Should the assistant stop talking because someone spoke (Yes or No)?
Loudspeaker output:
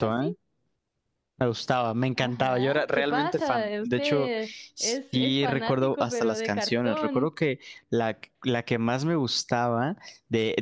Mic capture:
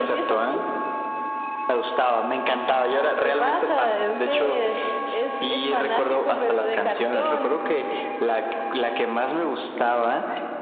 No